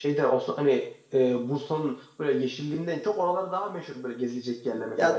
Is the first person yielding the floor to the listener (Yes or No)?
Yes